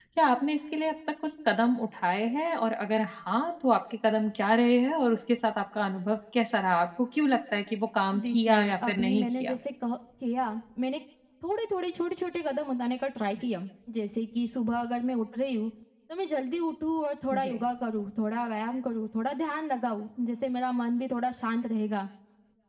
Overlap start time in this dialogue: 8.1 s

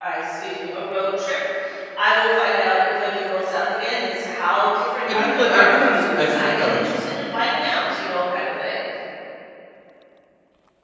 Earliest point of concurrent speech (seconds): 5.1 s

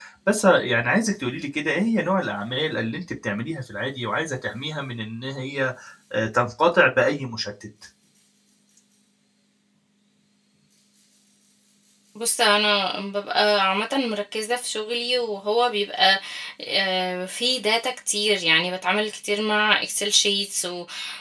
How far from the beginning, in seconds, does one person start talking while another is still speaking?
none

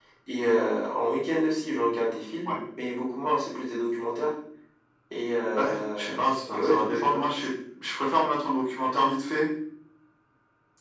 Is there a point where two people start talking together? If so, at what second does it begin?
5.5 s

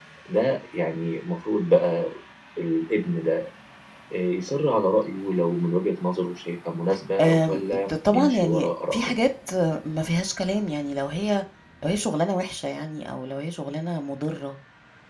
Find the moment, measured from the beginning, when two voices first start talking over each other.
7.2 s

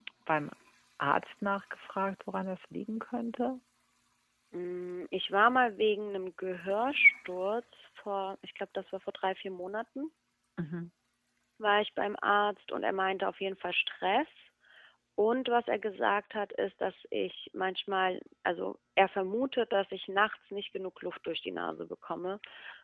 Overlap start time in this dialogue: none

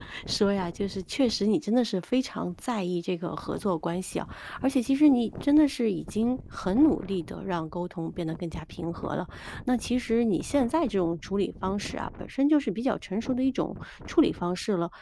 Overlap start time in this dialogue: none

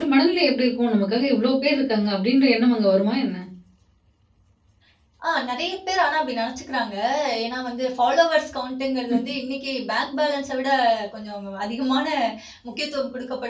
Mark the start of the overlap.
none

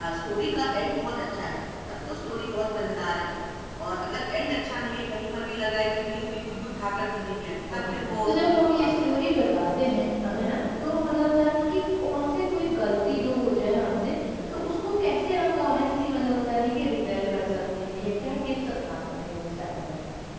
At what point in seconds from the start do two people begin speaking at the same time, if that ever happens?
7.7 s

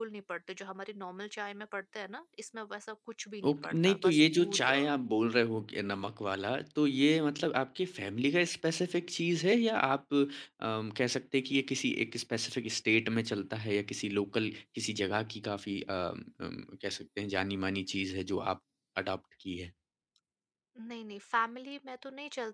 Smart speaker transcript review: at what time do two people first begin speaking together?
3.4 s

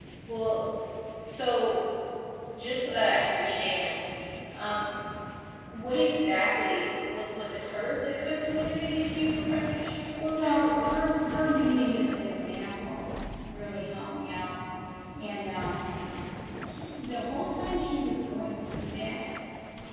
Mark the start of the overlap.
10.4 s

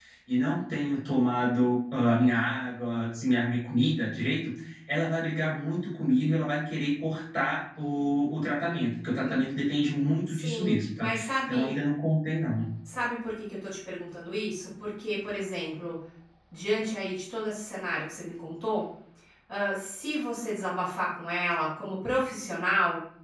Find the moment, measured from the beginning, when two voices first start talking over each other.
10.3 s

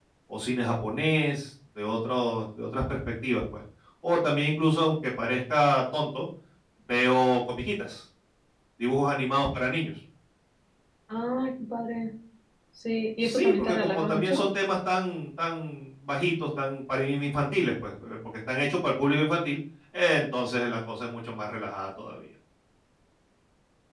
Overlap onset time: 13.2 s

